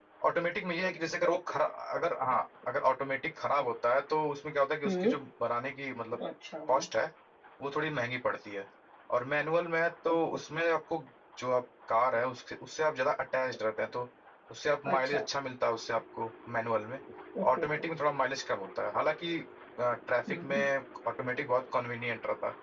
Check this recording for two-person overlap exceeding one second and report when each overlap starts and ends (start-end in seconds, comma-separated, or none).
none